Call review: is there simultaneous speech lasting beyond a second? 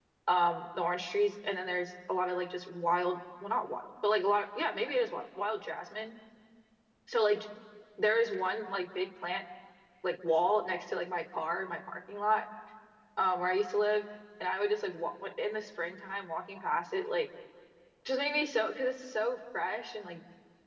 No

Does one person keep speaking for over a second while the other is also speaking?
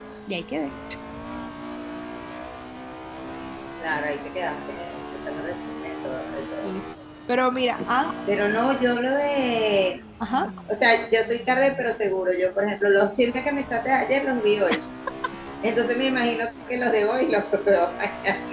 No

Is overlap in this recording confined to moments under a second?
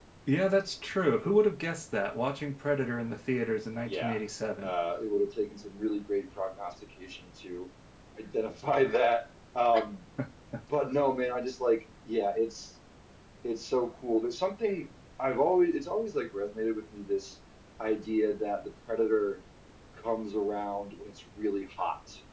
Yes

